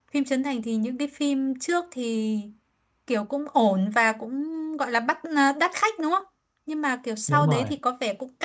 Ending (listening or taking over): listening